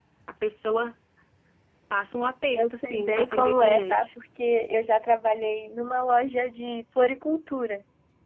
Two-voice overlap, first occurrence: 2.6 s

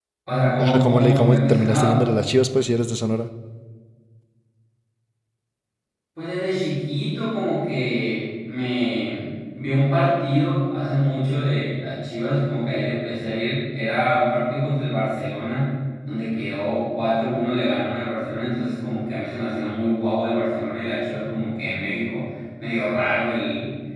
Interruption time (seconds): 0.6 s

